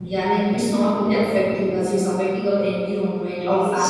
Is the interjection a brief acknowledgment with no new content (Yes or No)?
Yes